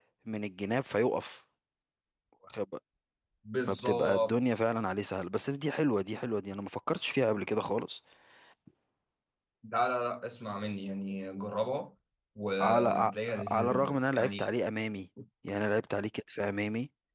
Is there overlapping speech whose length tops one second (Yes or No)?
Yes